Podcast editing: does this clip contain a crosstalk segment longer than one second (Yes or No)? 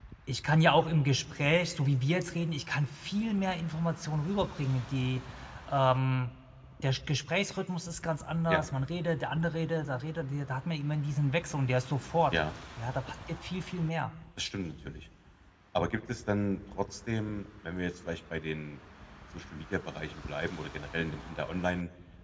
No